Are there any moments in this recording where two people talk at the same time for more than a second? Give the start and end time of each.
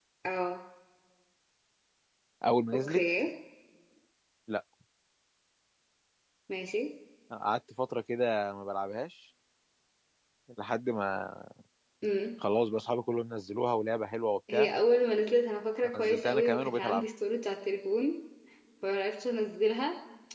15.8-17.0

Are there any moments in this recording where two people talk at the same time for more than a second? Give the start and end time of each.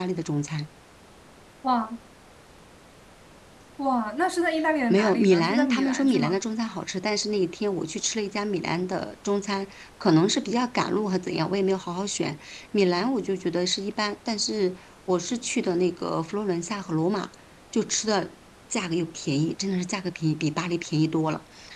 4.9-6.4

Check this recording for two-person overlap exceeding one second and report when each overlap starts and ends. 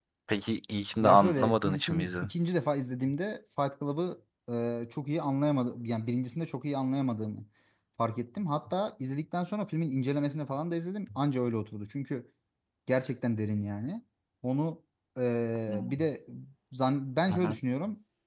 1.0-2.3

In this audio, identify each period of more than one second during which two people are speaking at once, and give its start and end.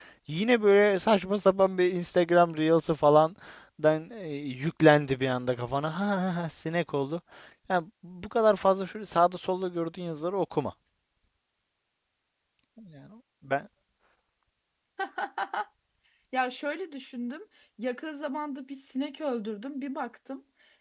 none

